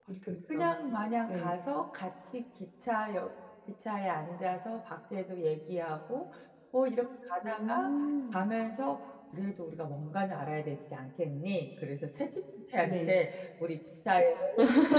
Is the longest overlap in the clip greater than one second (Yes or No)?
No